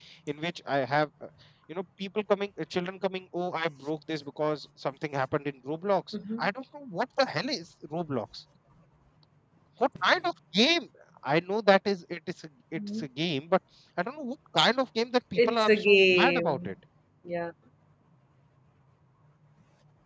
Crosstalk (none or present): present